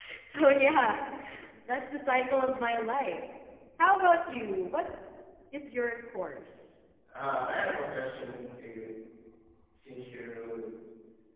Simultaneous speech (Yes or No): No